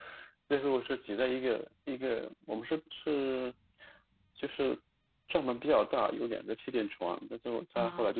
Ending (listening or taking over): listening